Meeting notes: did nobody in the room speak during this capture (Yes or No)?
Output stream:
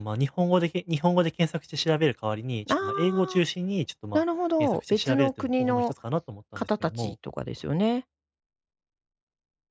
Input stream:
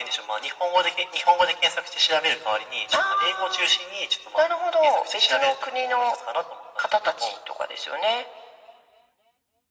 Yes